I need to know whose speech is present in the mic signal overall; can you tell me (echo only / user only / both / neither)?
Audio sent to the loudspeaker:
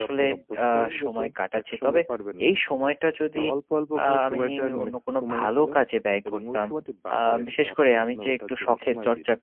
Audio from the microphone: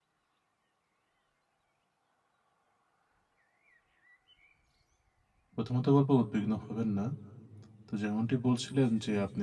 user only